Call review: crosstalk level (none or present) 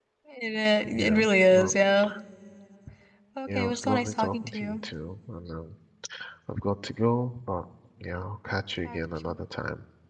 present